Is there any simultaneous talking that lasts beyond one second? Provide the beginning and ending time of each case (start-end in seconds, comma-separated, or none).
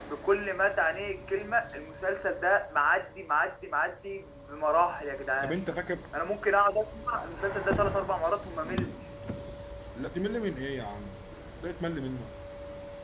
none